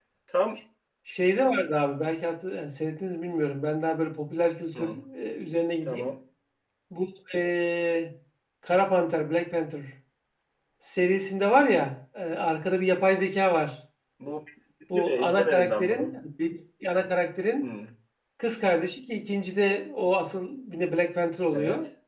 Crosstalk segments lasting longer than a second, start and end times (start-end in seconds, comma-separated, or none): 14.9-16.2